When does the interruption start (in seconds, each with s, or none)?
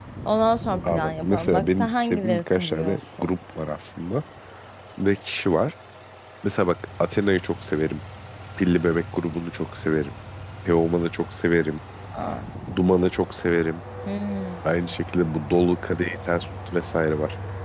0.9 s